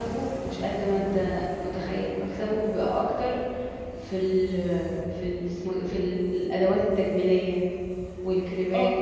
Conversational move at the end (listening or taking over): taking over